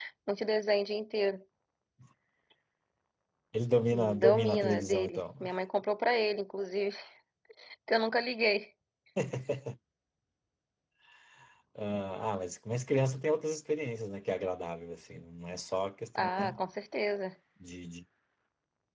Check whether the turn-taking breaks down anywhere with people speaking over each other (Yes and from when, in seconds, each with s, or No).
Yes, from 3.9 s